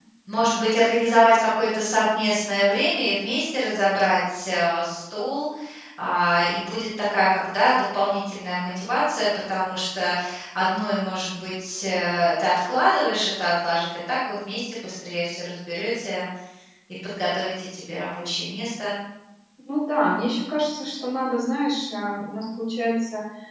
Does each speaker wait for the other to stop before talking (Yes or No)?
Yes